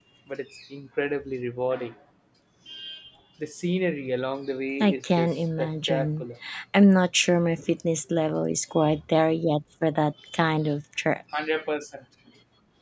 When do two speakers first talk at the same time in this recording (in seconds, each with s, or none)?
4.8 s